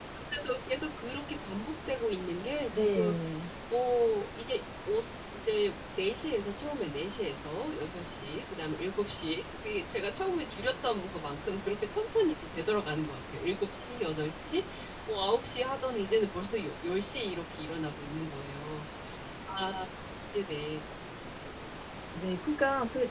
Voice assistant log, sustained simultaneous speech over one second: none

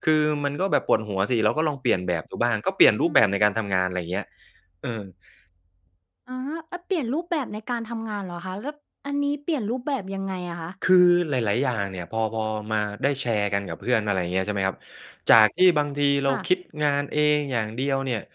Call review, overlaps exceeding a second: none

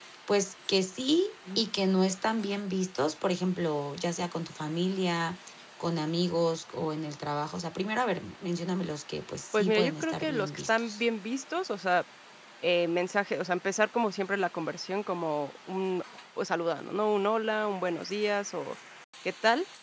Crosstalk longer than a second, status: present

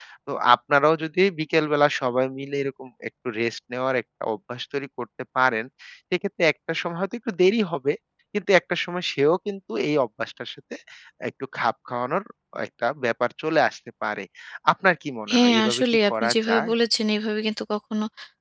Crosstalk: present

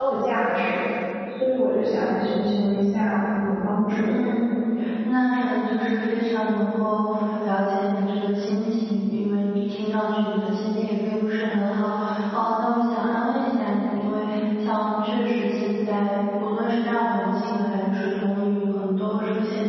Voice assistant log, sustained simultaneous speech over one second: none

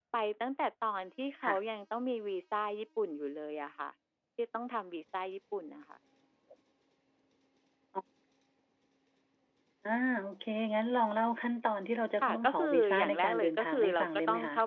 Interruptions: present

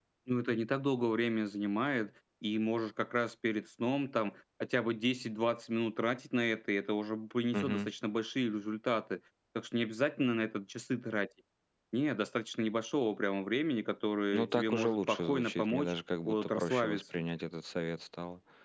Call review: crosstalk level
present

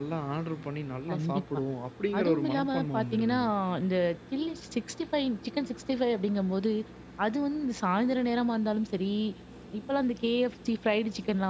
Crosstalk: present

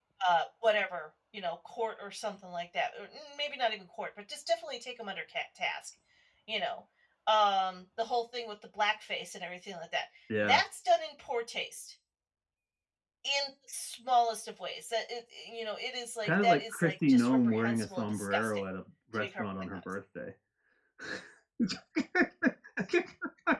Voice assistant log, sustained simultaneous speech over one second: present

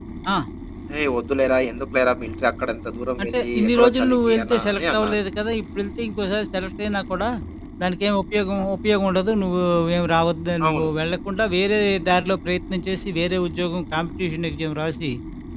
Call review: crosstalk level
present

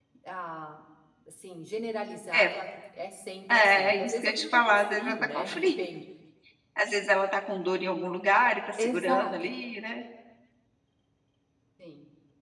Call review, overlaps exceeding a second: present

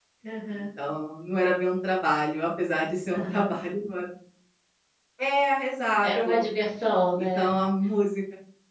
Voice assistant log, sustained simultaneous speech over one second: none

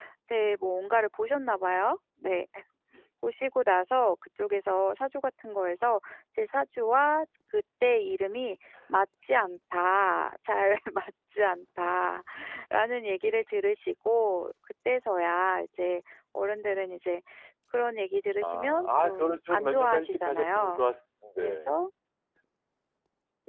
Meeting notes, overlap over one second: present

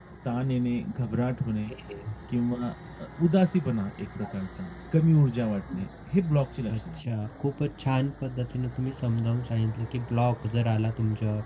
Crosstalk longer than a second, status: none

